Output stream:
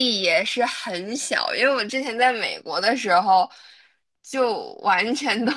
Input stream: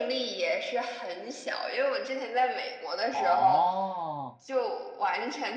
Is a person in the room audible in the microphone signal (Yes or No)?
Yes